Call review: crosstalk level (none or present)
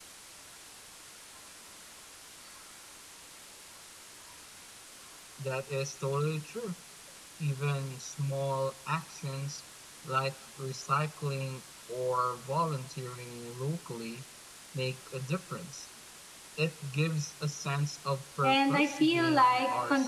present